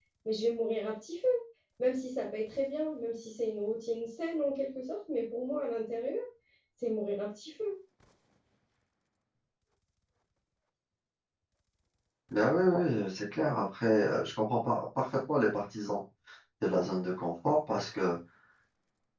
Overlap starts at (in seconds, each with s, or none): none